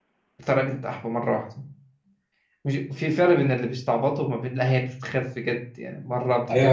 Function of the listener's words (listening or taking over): taking over